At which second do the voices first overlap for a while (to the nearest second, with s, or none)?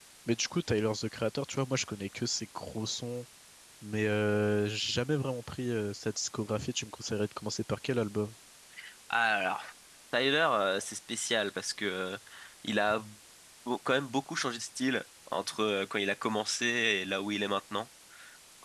none